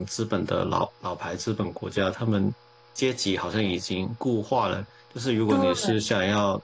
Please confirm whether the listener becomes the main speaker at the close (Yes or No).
No